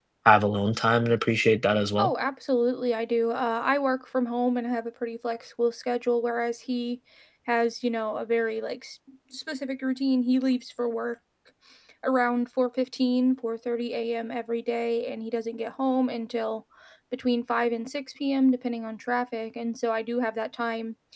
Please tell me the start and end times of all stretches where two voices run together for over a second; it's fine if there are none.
none

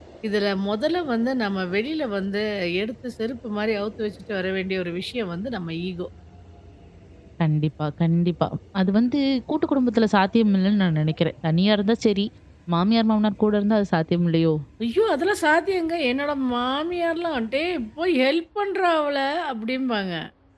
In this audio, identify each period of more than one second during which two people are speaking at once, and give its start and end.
none

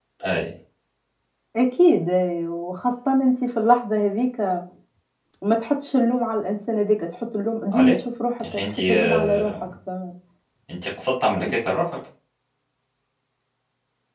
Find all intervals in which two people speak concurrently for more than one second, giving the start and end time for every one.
8.4-9.7

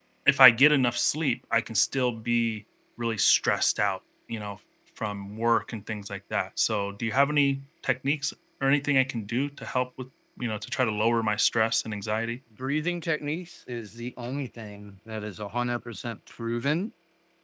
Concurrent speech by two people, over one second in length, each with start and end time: none

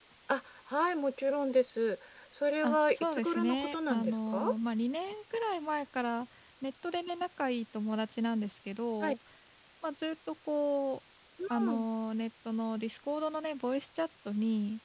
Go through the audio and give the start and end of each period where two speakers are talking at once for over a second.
2.6-4.4

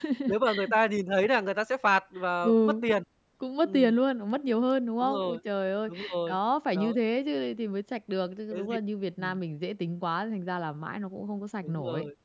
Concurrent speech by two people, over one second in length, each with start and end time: none

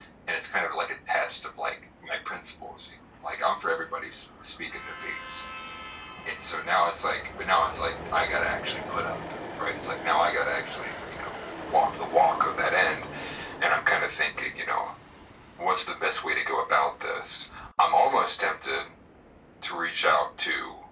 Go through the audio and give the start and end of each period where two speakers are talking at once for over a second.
none

